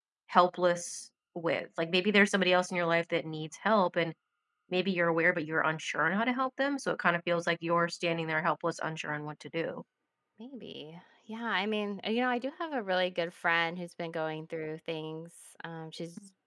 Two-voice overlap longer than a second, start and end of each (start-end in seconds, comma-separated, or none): none